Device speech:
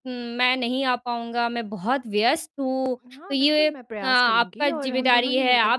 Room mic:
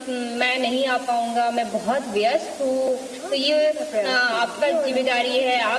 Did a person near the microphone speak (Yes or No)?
No